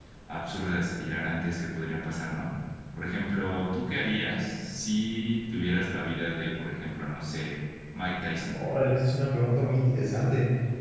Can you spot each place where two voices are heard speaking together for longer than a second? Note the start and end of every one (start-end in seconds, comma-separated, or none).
none